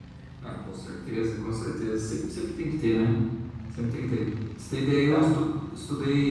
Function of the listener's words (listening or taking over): listening